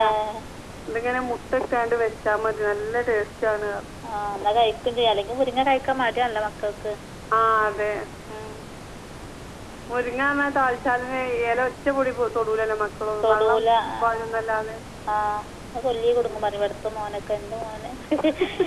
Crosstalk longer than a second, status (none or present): none